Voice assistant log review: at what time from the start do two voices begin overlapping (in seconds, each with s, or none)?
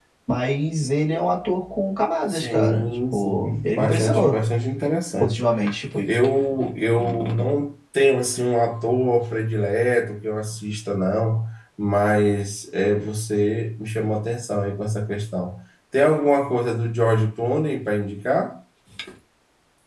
2.3 s